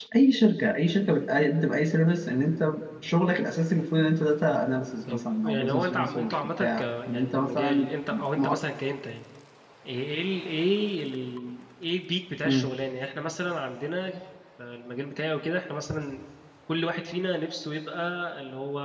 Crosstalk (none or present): present